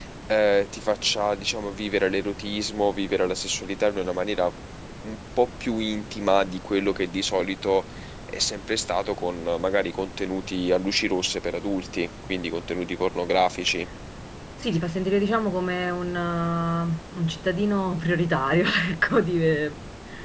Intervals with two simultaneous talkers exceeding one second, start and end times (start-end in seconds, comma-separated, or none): none